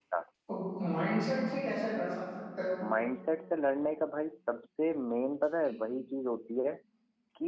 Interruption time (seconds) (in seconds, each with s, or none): none